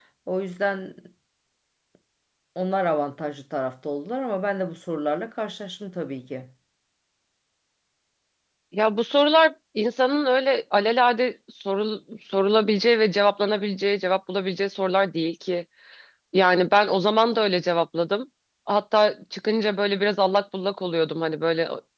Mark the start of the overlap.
none

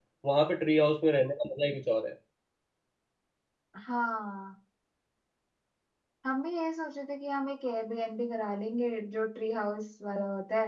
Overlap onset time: none

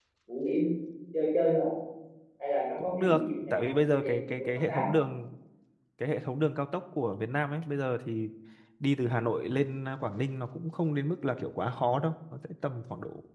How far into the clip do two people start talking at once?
2.8 s

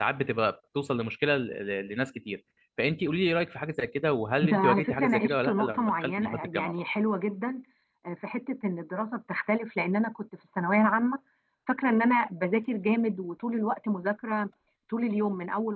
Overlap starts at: 4.4 s

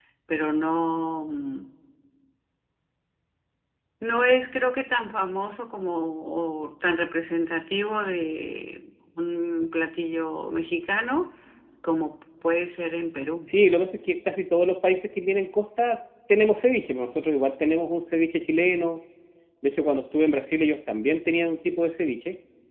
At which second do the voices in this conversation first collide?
none

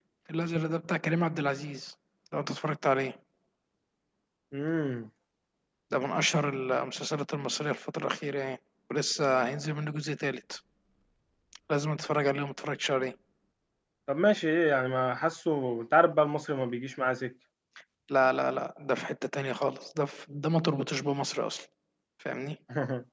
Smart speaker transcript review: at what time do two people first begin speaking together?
none

